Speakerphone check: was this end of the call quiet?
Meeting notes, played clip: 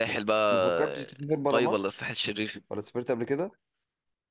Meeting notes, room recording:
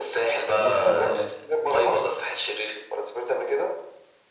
No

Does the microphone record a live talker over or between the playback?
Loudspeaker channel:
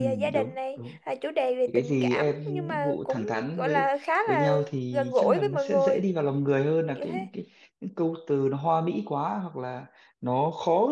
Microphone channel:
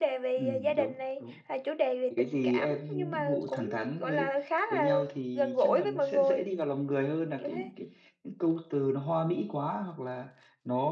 No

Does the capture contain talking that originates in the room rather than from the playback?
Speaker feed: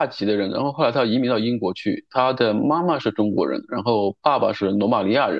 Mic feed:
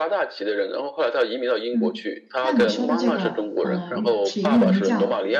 Yes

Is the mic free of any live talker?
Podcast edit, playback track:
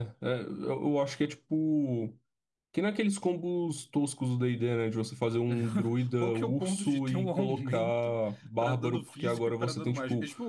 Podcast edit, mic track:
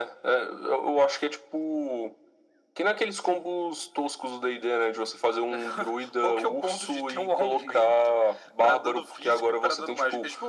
Yes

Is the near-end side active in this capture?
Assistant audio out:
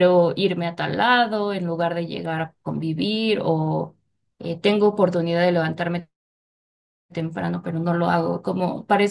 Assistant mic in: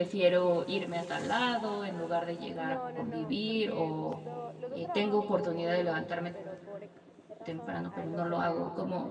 Yes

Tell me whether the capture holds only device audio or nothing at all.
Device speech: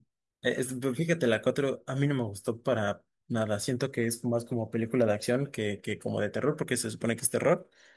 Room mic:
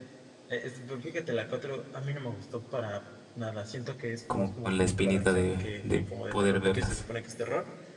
No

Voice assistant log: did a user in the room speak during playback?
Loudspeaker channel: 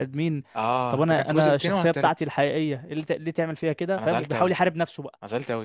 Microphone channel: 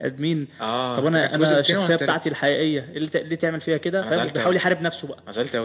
No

